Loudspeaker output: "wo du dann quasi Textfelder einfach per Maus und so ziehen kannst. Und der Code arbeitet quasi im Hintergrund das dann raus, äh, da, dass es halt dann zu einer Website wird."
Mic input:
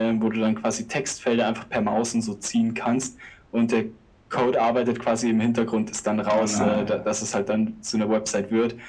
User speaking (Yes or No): Yes